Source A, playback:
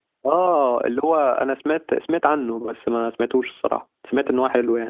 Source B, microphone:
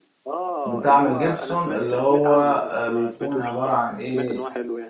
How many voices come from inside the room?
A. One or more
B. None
A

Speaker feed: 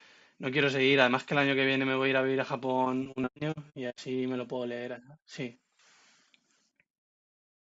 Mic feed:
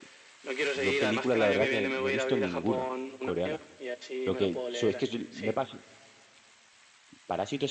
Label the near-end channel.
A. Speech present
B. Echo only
A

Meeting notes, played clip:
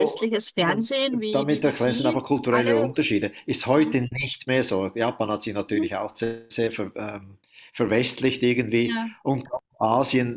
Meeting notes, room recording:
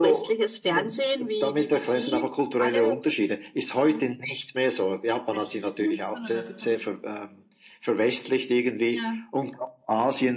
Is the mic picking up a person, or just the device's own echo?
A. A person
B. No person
A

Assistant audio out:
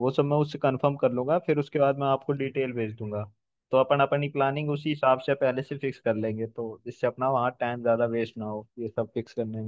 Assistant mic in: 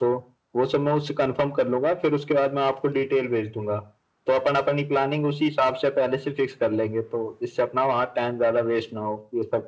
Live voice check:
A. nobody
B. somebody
A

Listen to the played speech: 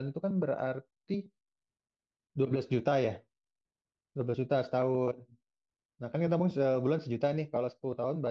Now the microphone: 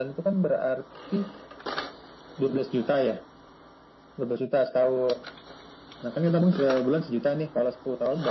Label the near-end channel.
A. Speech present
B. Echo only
B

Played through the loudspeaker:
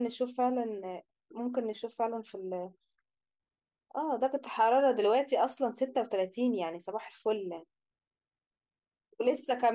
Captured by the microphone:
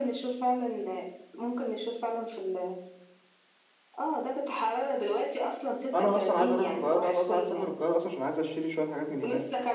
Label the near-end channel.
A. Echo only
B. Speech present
B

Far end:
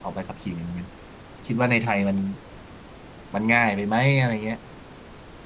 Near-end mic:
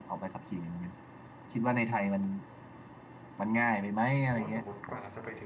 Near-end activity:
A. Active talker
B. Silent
A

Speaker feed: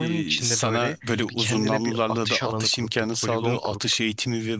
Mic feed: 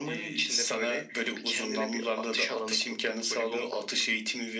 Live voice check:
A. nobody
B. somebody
A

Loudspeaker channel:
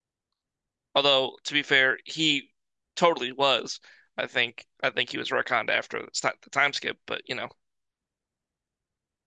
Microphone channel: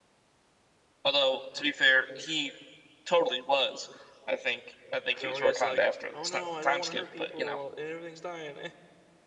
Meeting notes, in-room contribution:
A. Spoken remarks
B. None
A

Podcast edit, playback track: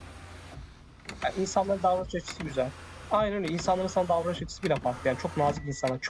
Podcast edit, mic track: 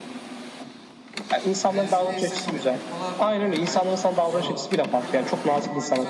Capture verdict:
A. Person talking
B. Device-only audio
A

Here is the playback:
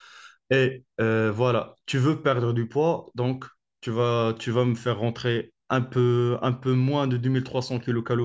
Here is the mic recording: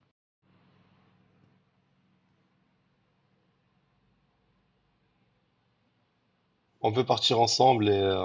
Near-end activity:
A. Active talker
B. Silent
A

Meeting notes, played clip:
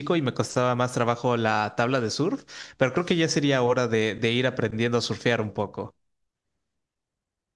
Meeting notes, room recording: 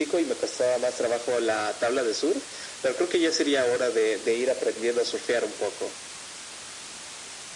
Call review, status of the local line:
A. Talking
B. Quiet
B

